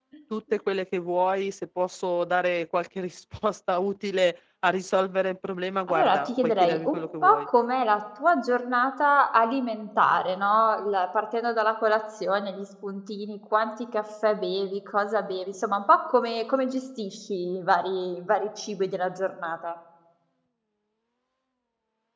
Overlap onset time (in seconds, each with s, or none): 5.9 s